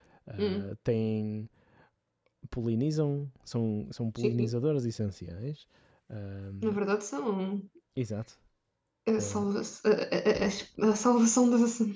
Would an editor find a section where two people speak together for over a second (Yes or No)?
No